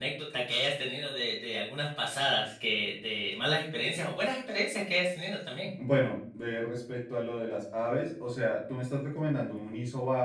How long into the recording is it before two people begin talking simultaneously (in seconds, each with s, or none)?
none